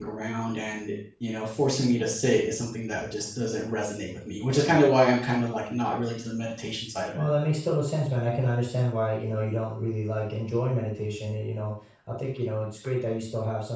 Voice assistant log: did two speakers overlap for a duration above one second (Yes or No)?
No